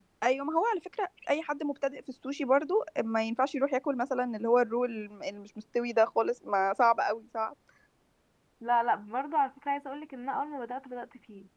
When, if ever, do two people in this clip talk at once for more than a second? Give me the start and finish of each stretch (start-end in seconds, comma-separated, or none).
none